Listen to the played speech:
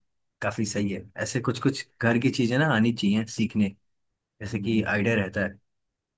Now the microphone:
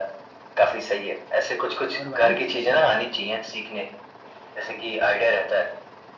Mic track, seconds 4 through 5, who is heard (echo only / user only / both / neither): echo only